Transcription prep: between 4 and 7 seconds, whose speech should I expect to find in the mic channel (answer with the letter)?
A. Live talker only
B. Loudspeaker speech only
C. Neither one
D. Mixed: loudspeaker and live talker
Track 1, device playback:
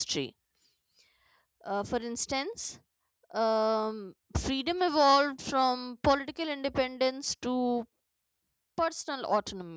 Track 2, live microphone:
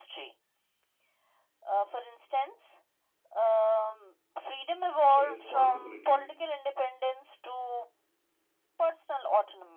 D